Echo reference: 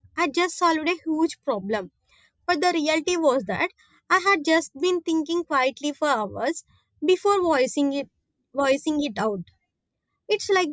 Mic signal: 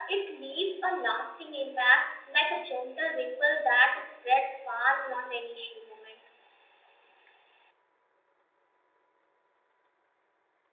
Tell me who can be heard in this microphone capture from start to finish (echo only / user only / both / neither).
user only